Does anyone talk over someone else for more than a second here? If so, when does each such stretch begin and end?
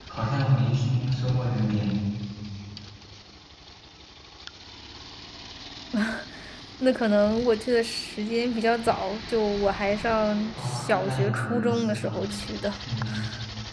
10.6-12.2

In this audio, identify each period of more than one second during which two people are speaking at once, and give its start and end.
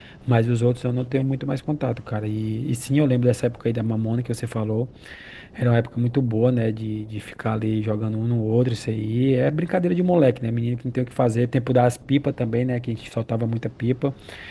none

